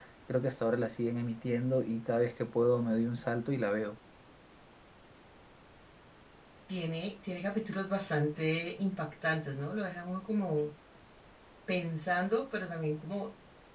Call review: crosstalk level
none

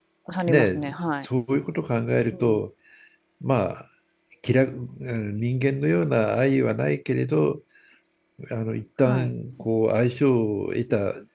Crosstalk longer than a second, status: none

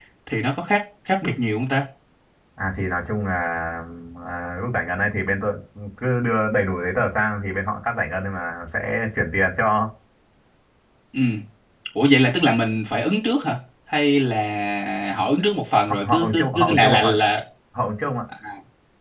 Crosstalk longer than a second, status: present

